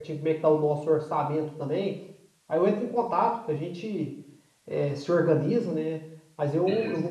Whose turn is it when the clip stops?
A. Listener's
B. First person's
B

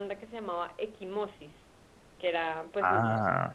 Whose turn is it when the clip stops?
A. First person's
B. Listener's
A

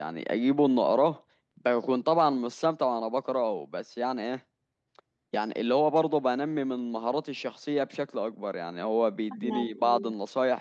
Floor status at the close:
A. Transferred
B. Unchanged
B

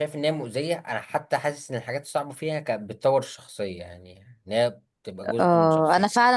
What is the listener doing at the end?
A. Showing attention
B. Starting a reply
B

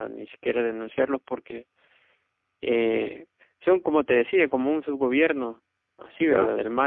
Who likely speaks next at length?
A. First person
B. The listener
A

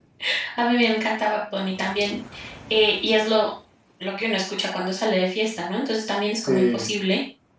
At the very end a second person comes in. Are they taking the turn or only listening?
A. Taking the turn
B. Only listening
B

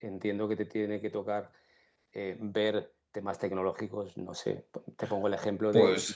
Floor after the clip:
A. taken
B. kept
B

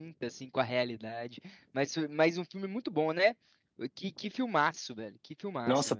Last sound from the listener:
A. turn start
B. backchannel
A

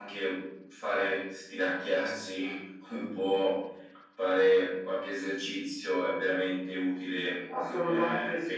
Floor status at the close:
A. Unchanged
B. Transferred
B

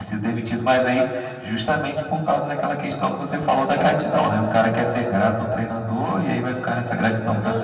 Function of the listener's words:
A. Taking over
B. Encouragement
A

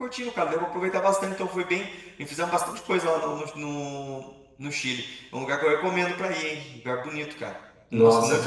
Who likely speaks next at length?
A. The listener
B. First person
A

